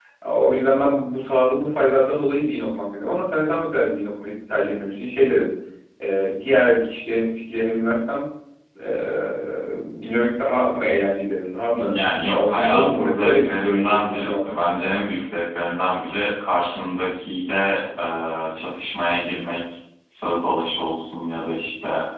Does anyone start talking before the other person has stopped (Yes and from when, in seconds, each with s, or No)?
Yes, from 11.7 s